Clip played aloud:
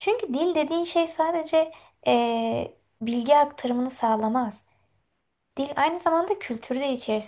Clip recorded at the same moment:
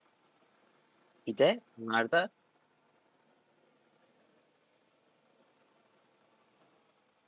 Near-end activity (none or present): present